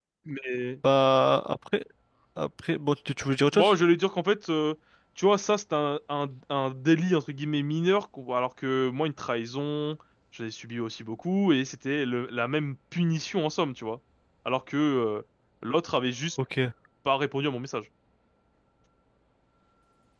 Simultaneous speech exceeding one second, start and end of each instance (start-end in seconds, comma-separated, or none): none